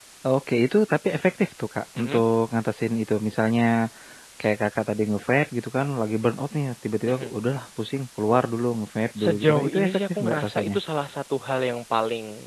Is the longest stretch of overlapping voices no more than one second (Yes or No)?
No